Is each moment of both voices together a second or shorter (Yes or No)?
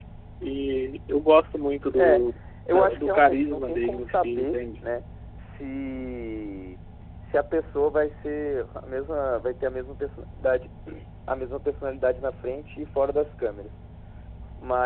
No